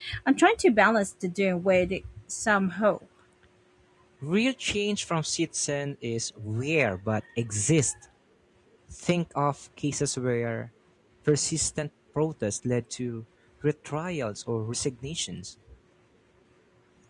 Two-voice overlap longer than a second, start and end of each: none

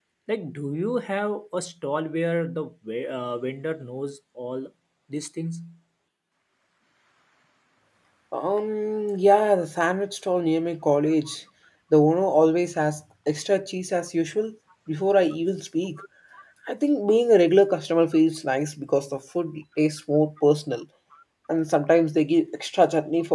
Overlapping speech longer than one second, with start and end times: none

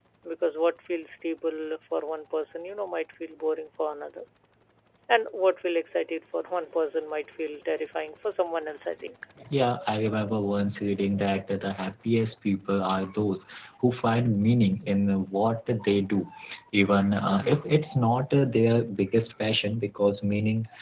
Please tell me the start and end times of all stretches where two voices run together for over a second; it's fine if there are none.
none

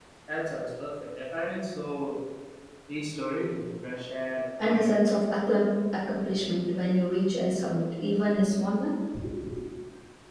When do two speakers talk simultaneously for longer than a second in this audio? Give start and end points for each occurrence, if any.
none

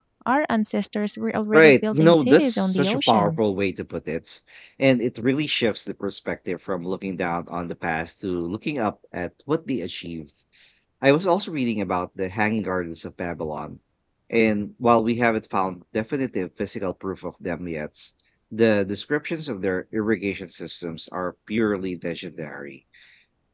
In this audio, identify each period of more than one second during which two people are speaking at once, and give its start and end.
1.5-3.4

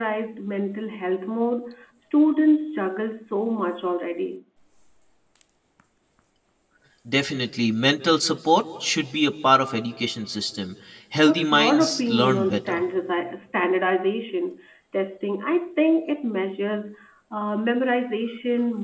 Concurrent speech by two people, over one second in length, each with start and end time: 11.2-12.8

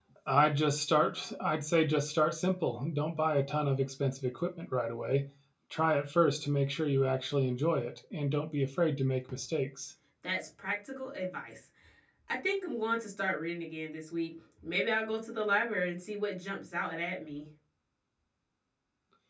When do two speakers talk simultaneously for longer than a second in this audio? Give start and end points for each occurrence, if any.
none

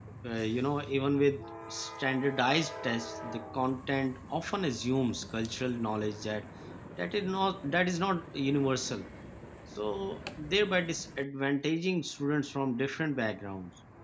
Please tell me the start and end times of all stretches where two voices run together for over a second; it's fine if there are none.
none

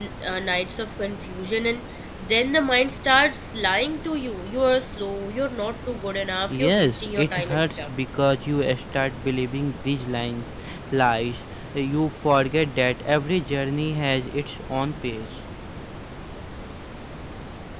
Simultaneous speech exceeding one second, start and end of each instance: 6.5-7.9

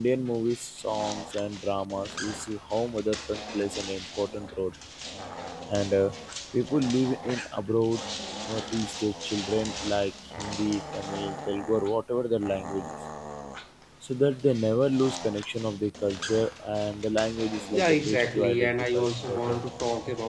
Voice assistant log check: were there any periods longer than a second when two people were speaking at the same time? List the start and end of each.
17.7-19.6

